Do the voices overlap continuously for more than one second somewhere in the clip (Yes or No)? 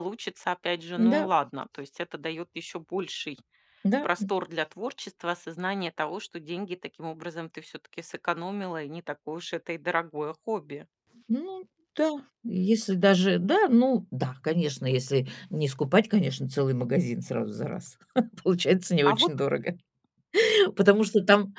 No